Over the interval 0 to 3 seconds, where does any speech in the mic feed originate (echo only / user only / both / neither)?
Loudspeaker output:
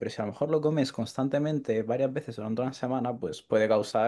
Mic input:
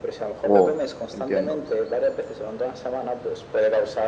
both